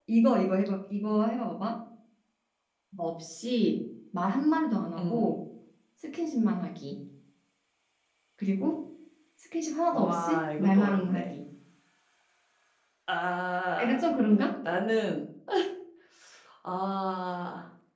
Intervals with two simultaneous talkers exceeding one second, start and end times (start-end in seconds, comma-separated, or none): 9.9-11.3